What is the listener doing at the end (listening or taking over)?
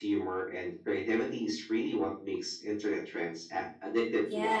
taking over